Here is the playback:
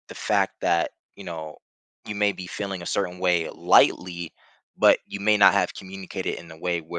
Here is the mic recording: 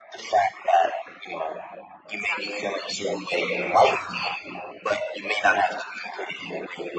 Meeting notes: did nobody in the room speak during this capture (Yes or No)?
No